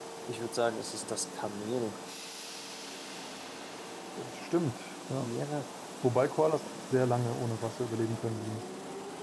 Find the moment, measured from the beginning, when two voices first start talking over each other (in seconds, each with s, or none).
none